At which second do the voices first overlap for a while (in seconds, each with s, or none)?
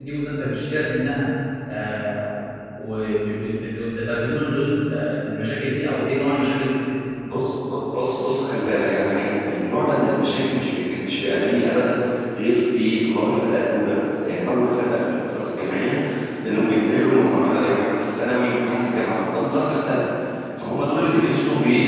none